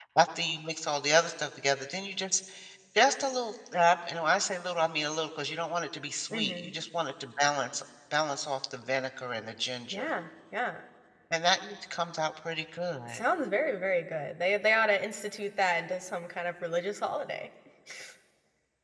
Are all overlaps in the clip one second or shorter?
Yes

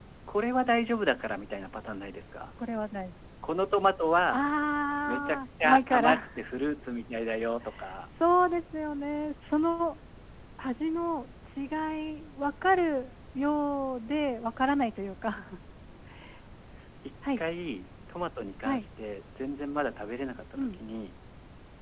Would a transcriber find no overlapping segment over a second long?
No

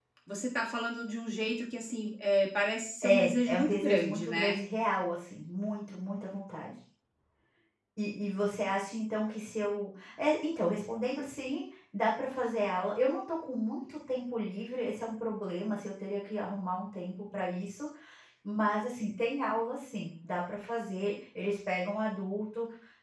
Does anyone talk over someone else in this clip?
Yes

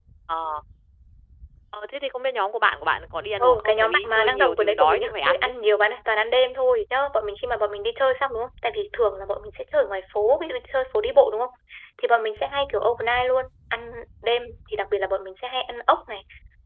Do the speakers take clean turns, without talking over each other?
No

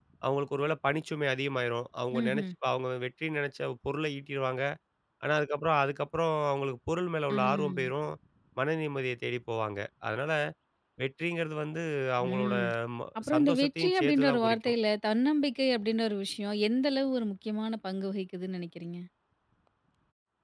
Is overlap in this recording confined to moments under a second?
No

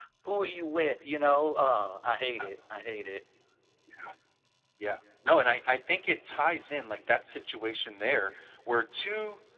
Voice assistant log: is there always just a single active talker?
Yes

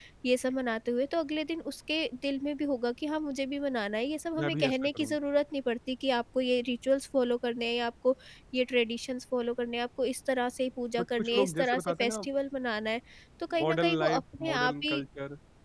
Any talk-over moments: Yes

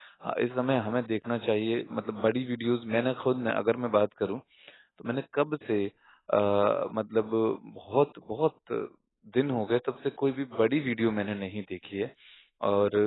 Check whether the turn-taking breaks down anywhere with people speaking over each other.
No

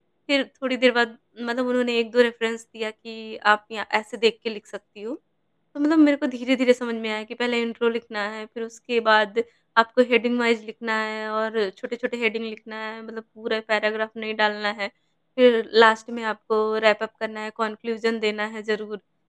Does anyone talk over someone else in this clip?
No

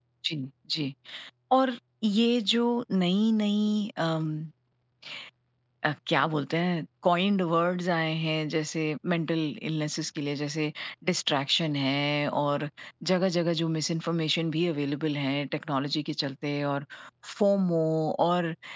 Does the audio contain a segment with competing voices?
No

